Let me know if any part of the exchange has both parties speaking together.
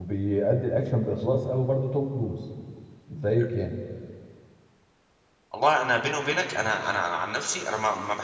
No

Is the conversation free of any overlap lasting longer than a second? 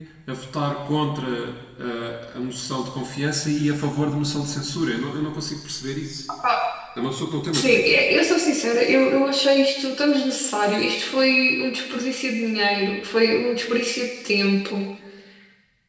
Yes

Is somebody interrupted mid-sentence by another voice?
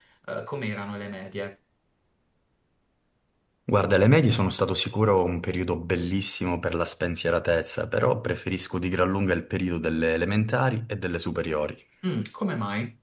No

